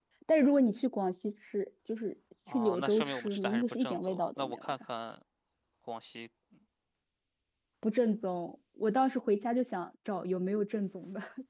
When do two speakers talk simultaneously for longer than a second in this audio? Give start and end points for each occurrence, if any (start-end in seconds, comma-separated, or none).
2.5-4.7